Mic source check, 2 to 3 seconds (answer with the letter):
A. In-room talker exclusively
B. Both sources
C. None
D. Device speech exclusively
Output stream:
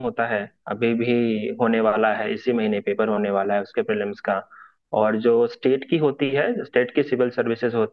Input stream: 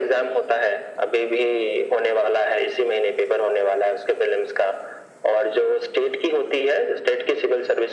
D